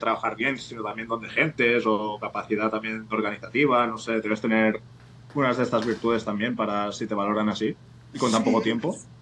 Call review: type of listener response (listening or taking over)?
taking over